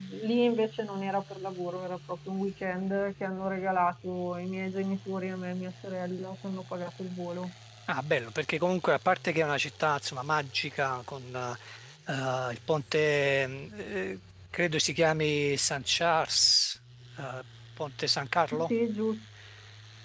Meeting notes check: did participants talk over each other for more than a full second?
No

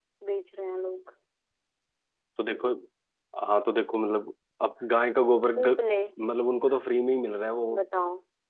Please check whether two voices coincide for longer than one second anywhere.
No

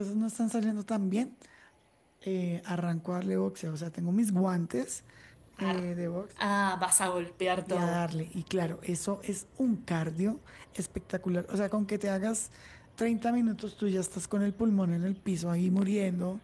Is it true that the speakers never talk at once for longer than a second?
Yes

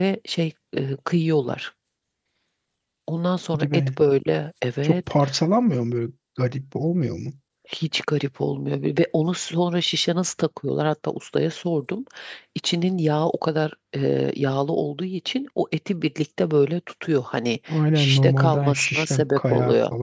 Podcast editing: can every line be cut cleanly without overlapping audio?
No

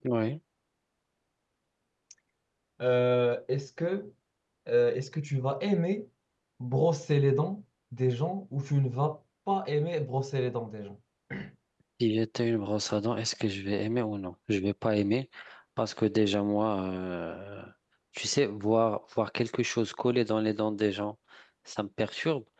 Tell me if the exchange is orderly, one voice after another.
Yes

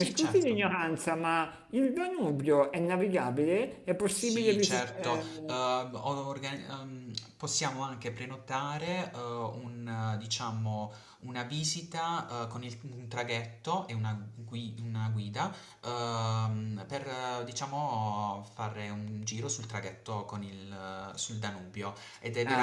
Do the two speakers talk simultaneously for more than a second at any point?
Yes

